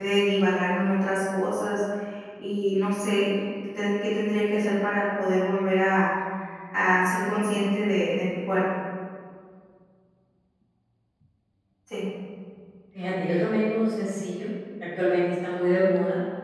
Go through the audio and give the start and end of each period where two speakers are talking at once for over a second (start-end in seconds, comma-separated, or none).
none